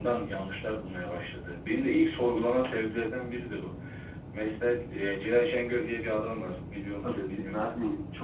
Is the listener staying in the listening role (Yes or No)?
No